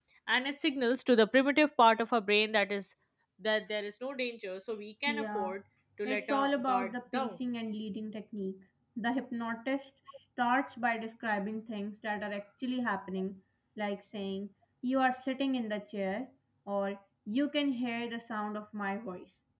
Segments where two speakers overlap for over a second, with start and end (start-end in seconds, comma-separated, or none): 6.0-7.4